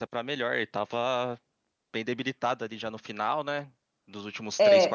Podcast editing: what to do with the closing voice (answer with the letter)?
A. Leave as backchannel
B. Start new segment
B